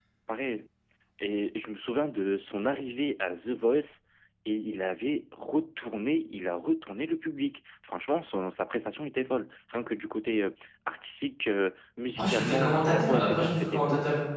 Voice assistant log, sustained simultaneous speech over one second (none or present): present